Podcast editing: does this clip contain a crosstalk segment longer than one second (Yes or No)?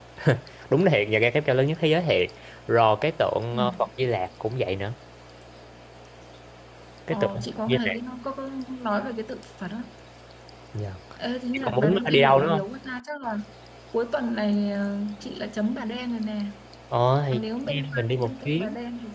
Yes